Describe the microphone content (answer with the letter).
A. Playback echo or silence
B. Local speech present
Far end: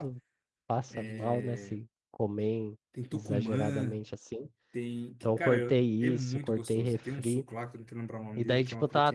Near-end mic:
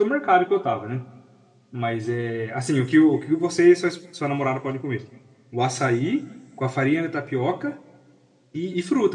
B